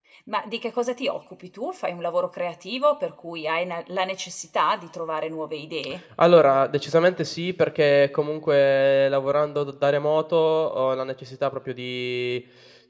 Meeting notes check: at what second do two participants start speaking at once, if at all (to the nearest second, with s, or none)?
none